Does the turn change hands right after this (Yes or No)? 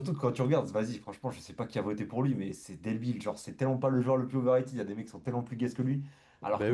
No